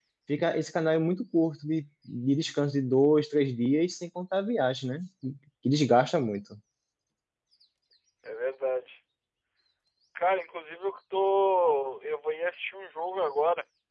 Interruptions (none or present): none